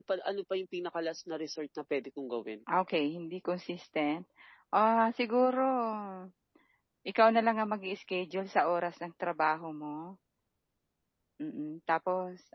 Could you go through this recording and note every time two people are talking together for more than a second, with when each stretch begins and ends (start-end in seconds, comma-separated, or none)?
none